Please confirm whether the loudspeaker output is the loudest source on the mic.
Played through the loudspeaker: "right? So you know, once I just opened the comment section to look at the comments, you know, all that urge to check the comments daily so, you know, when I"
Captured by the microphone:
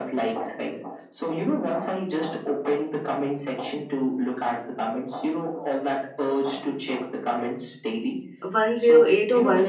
No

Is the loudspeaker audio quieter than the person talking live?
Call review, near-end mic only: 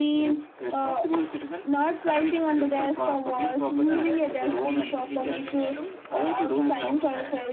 No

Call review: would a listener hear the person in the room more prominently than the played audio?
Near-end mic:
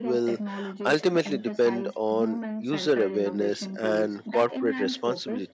Yes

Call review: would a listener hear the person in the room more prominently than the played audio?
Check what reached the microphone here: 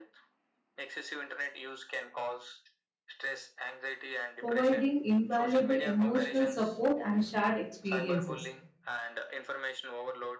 Yes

